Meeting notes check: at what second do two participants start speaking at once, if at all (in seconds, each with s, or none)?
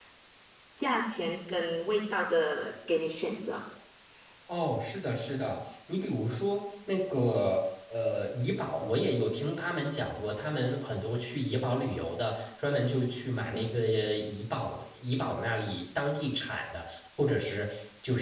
none